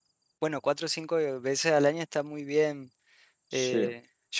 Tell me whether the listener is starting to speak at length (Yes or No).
No